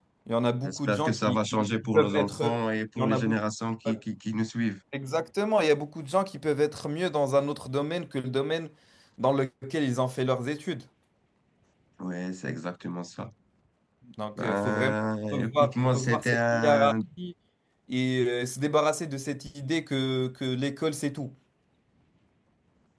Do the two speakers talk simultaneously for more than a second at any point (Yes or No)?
Yes